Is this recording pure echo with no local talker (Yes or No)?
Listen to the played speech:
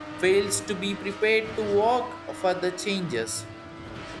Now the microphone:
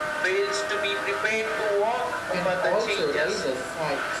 No